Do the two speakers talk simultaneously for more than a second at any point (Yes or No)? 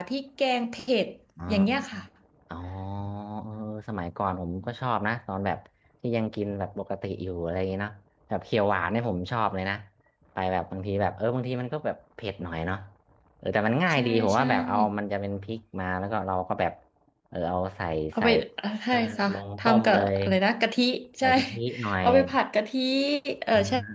Yes